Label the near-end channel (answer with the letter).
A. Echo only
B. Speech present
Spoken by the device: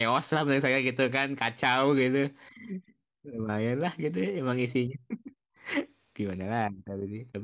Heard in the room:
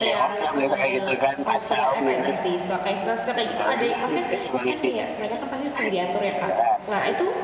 B